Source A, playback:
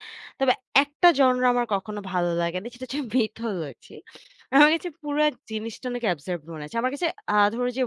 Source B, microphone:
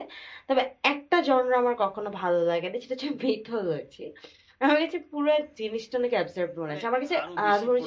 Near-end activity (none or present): present